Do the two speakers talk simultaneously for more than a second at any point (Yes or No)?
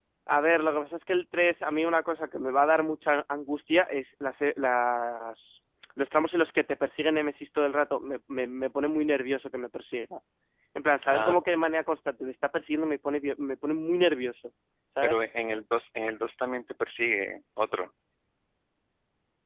No